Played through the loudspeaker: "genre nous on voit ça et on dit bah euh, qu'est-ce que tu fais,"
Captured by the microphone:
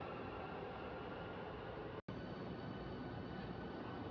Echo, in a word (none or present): none